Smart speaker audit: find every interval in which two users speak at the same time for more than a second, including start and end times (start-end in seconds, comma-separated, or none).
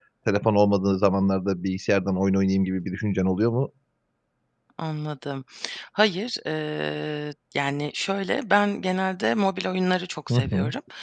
none